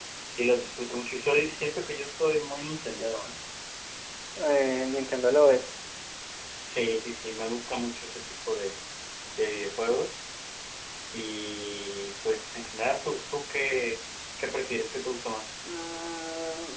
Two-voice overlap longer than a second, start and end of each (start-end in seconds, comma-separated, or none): none